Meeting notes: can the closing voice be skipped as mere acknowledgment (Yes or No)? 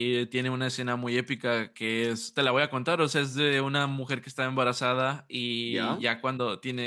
Yes